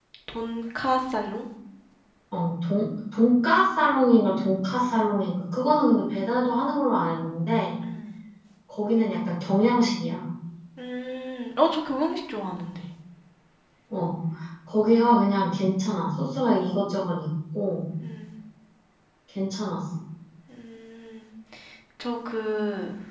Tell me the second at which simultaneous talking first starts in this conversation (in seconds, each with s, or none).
none